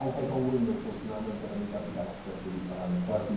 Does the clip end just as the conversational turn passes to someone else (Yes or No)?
No